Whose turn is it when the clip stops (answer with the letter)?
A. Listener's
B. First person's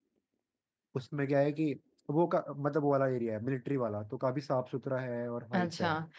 A